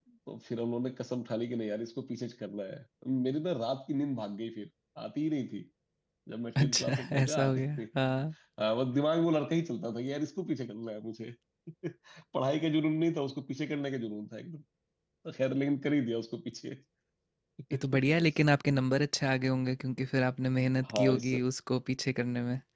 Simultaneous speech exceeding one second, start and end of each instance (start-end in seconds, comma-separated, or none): 6.6-7.8